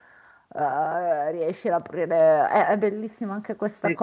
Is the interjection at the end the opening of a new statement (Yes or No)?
Yes